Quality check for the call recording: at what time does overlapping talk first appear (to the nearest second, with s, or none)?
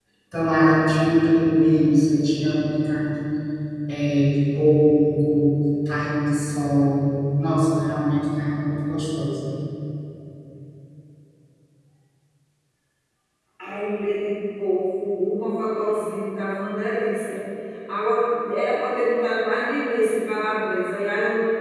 none